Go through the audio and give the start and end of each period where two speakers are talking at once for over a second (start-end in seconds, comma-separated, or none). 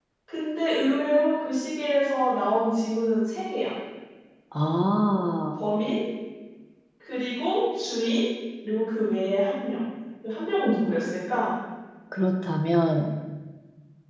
none